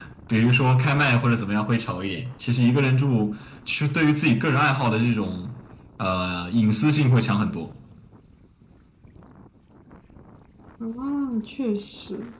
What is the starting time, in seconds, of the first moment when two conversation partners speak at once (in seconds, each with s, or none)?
none